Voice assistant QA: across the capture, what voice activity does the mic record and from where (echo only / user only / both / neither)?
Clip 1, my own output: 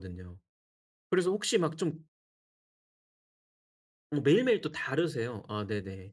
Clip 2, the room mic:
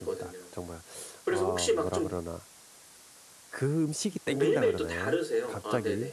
both